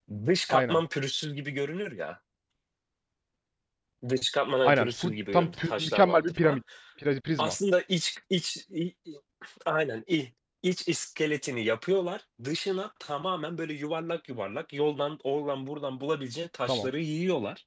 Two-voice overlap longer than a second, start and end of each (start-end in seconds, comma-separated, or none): 4.6-6.6